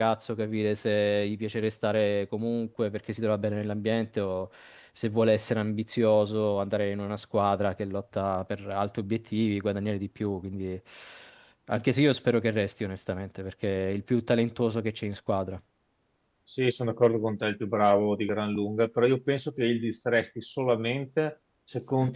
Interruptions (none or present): none